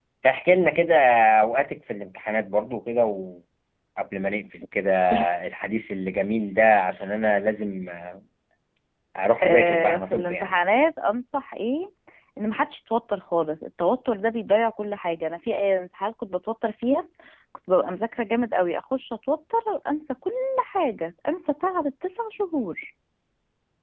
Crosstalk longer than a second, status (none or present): present